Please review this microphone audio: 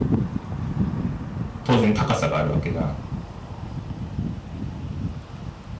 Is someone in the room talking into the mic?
Yes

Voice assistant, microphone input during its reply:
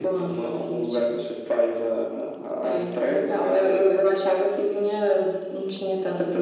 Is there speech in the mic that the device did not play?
No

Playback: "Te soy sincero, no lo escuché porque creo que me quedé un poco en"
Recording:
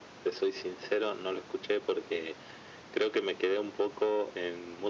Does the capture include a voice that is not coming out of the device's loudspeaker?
No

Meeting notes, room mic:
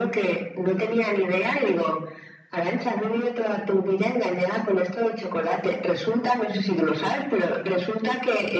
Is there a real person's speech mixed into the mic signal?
No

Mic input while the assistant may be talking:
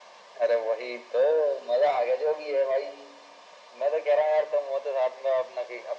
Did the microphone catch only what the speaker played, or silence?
Yes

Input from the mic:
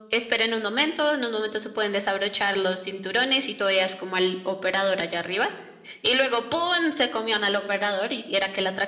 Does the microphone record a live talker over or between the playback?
No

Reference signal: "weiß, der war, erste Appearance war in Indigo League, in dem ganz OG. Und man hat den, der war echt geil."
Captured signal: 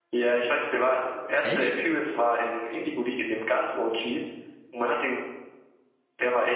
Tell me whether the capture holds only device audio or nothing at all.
No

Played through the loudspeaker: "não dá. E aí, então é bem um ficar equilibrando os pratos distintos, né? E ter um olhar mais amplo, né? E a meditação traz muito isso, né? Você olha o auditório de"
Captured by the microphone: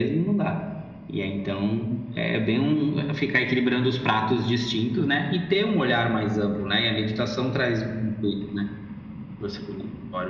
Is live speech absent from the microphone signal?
Yes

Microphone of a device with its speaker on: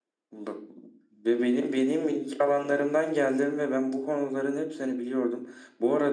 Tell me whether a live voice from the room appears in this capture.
No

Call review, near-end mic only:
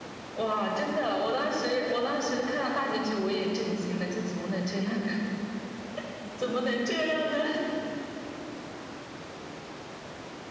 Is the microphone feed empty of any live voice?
Yes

